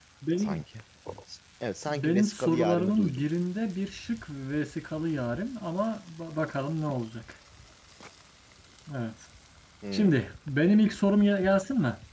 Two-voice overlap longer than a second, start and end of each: 1.9-3.2

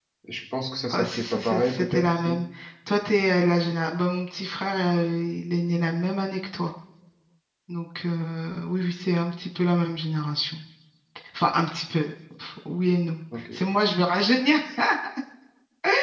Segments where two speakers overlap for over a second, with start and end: 0.9-2.4

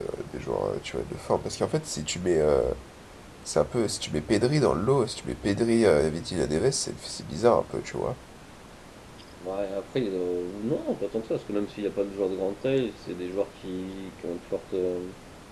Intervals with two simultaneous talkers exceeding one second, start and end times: none

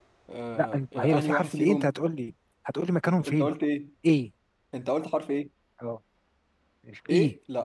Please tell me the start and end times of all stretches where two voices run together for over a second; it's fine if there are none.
0.6-1.9

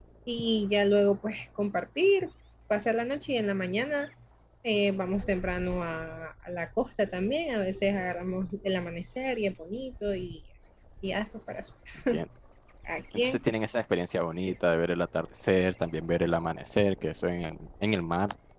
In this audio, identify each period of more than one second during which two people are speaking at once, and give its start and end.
none

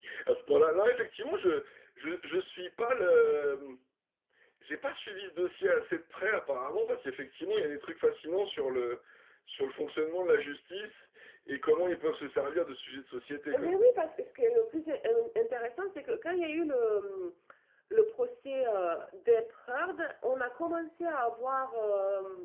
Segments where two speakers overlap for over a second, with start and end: none

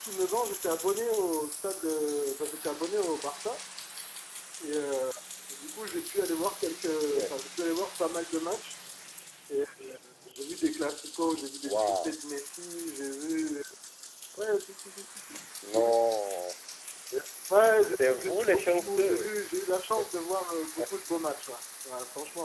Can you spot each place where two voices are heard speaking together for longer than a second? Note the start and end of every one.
18.0-19.3

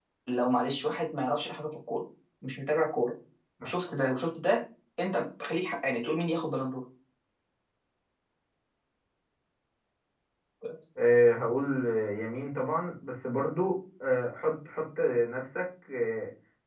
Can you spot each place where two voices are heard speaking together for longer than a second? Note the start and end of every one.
none

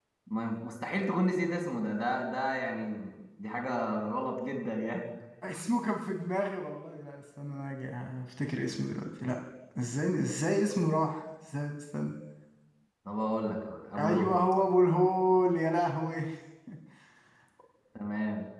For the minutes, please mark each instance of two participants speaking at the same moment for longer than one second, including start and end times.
none

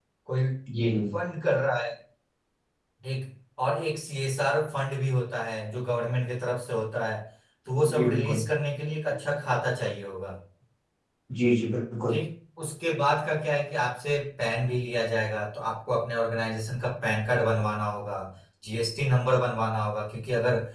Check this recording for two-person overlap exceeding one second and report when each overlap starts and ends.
none

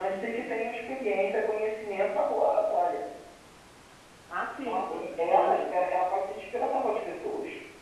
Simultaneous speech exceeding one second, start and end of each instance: 4.5-5.8

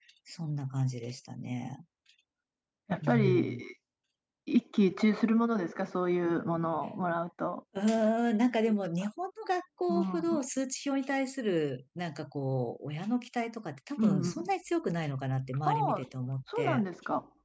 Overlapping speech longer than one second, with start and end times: none

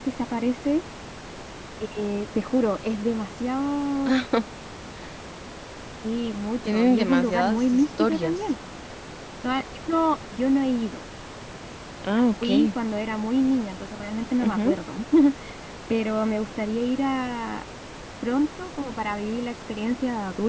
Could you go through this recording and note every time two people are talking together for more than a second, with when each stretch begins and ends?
6.6-8.4

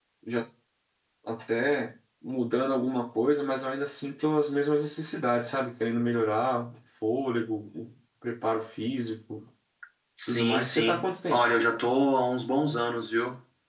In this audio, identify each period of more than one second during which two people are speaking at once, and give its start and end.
10.3-11.5

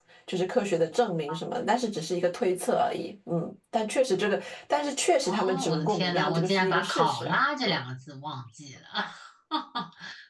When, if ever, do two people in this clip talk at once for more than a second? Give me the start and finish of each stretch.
5.2-7.8

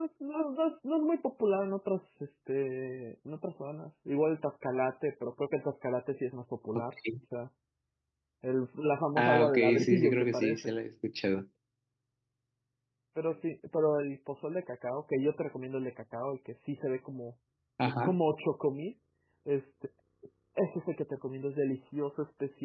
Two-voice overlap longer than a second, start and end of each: 9.2-10.7

